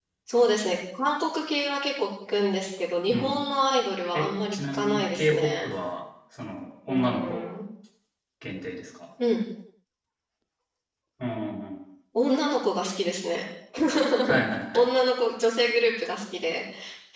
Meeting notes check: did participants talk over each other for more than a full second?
Yes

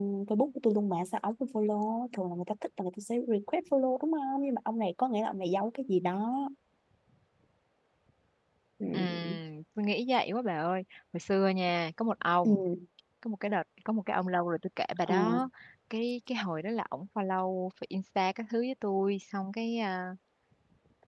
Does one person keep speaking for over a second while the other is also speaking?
No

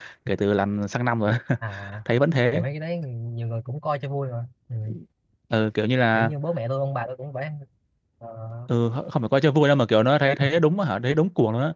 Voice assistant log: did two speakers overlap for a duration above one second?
No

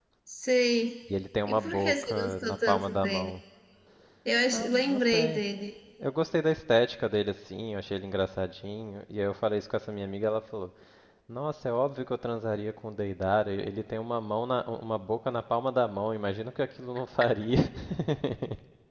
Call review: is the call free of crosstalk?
No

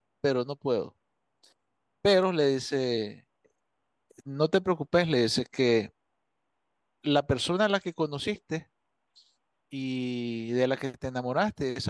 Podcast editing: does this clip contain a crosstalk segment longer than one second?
No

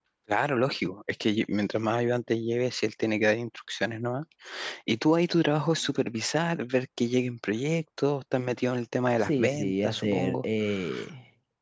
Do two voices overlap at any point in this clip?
Yes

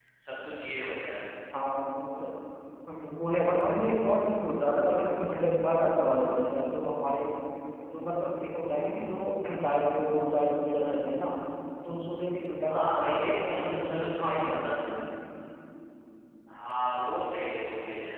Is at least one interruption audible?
Yes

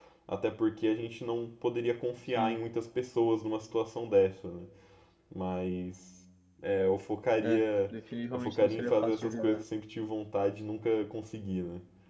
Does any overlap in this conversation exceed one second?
Yes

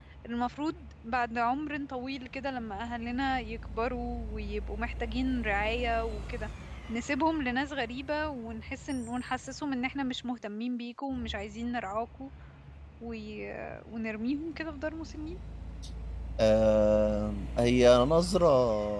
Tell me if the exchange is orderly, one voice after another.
Yes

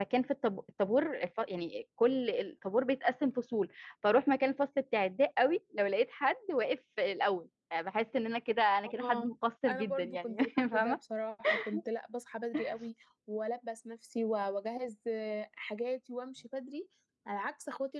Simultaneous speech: Yes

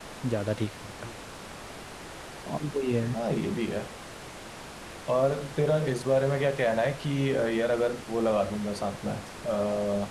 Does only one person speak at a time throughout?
Yes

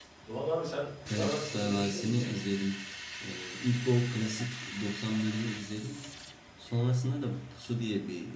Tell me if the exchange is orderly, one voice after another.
No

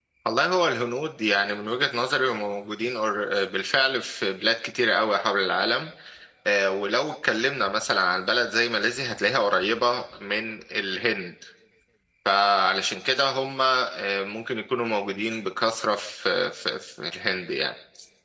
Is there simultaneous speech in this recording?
No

